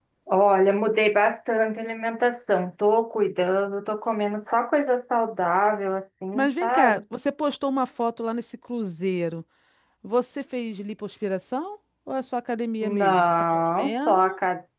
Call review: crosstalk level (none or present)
present